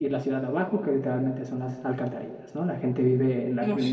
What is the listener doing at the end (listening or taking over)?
listening